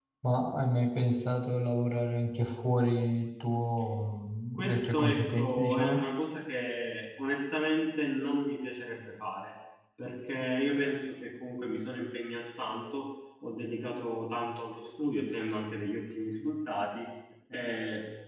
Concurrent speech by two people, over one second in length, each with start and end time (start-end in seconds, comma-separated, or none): 4.5-6.0